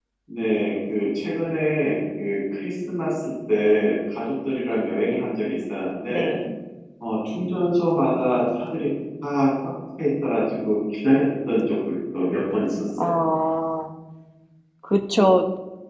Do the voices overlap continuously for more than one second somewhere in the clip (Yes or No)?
No